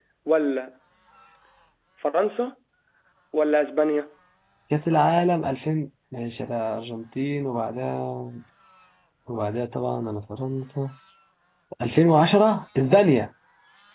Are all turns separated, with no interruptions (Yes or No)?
Yes